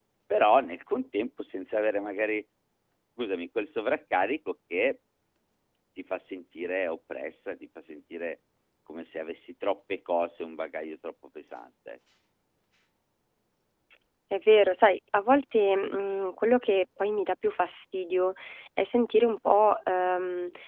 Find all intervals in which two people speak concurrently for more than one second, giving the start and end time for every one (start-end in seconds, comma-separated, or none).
none